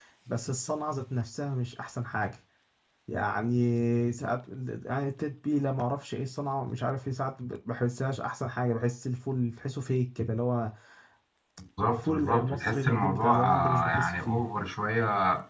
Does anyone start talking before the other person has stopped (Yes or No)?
Yes